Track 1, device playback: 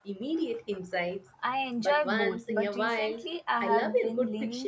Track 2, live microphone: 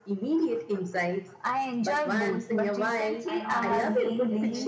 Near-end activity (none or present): present